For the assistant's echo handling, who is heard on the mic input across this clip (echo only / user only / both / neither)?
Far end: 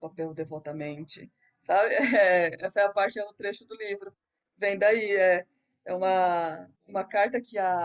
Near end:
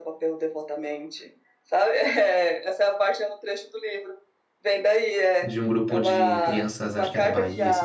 both